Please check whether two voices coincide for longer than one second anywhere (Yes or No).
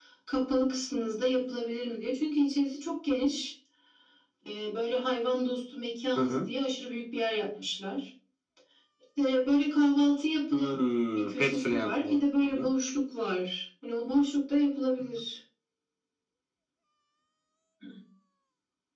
Yes